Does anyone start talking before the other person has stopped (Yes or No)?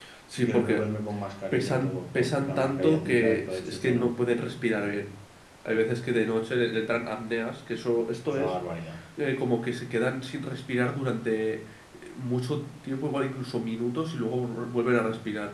Yes